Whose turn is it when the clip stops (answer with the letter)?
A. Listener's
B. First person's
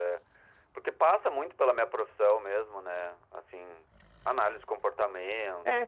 A